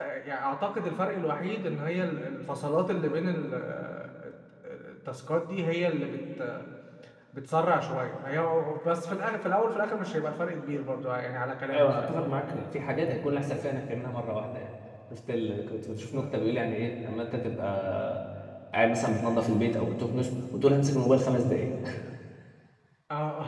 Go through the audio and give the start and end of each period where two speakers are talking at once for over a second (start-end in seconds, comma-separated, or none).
none